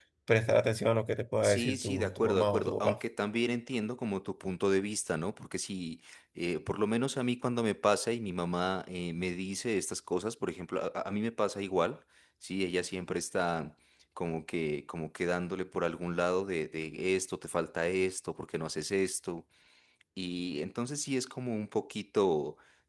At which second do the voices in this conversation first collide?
1.4 s

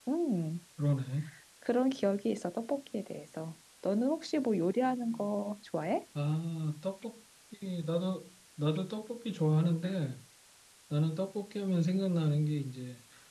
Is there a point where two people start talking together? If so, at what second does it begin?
none

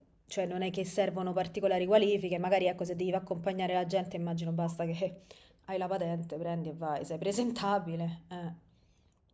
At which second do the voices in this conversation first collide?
none

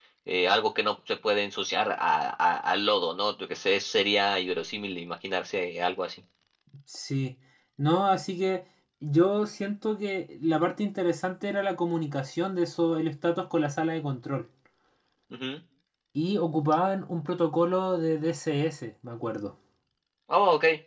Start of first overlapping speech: none

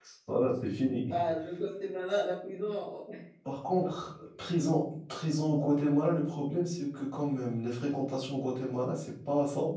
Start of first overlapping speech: none

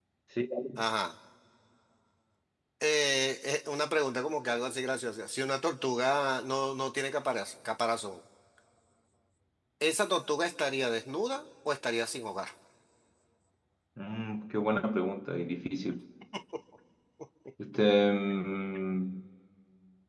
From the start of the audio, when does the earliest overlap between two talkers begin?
none

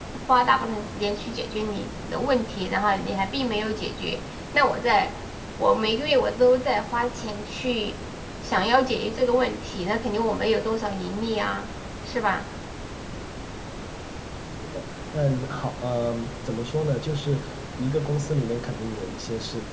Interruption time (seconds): none

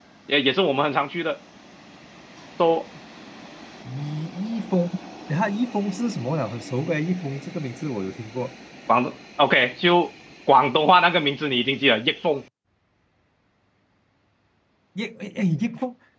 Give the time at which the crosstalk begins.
none

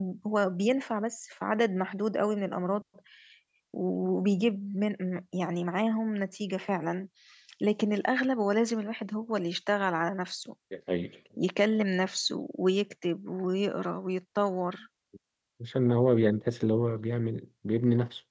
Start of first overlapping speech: none

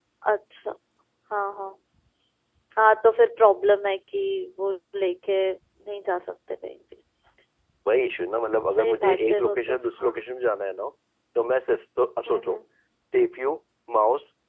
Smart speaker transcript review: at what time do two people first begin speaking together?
8.7 s

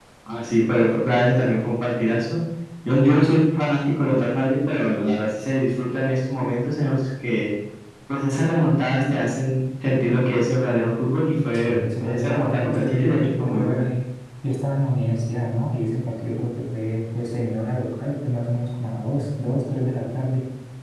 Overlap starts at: 11.5 s

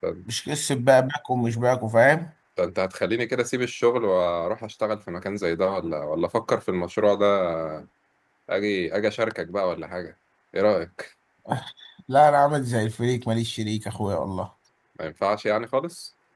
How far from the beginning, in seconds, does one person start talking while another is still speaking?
none

